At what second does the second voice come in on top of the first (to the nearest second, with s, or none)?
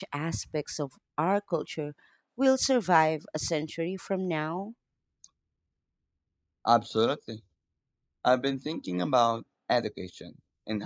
none